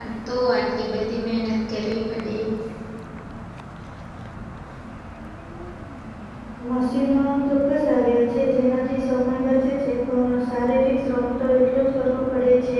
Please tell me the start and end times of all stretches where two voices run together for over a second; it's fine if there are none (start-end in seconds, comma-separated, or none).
none